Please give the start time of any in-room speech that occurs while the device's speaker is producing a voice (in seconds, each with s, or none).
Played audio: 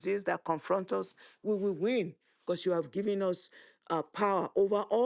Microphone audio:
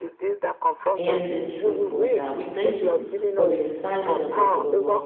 1.0 s